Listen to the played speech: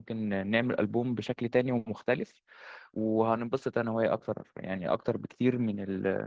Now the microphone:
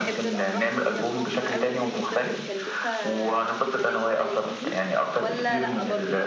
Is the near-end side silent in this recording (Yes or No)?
No